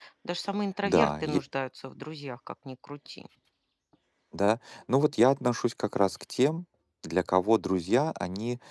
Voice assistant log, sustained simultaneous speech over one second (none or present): none